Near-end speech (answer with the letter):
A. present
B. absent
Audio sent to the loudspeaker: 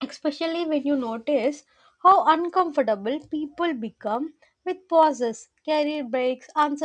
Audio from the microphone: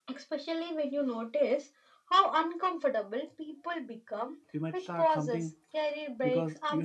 A